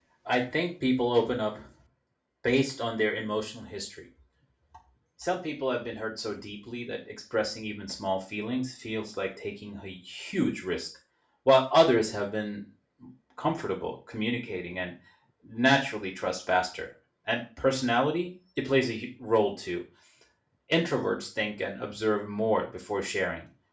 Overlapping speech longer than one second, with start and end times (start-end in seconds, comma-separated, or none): none